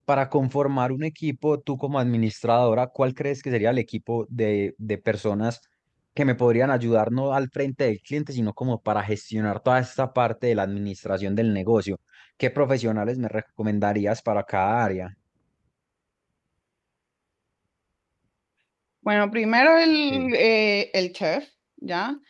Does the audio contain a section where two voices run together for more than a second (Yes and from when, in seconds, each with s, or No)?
No